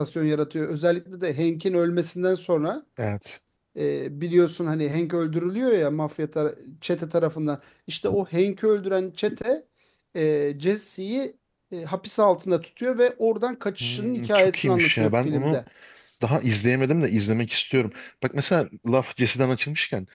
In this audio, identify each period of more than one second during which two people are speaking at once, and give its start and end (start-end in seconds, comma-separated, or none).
13.8-15.6